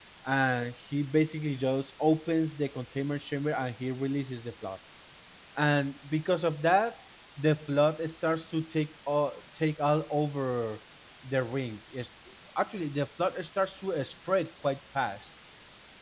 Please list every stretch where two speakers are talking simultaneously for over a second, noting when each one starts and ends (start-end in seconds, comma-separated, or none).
none